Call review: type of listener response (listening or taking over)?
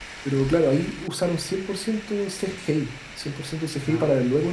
listening